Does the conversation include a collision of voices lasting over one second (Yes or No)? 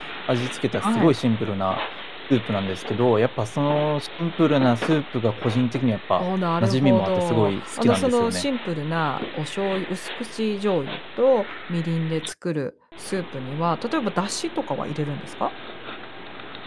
Yes